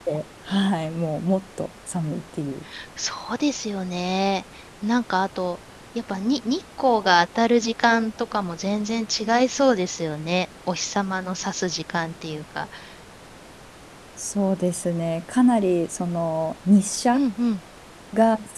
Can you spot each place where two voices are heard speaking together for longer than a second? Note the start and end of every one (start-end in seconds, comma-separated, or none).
none